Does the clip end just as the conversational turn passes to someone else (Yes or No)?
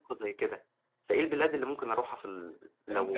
Yes